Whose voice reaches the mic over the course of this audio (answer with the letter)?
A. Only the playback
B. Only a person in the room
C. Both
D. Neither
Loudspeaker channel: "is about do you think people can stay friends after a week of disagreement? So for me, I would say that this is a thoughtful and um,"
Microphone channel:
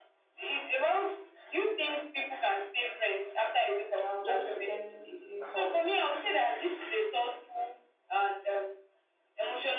C